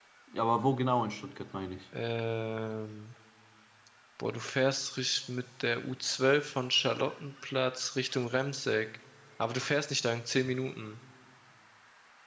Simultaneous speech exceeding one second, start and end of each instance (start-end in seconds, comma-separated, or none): none